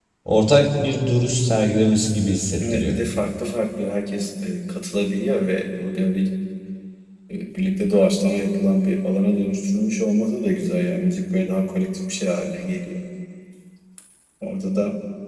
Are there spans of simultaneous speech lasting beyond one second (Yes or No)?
No